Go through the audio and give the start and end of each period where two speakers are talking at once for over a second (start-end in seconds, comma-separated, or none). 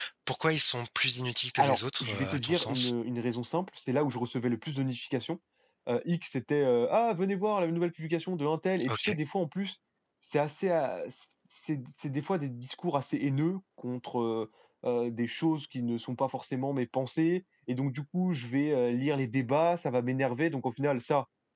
1.6-2.9